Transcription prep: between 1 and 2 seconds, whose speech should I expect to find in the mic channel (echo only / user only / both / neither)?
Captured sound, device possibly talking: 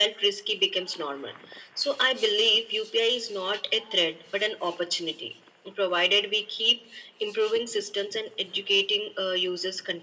echo only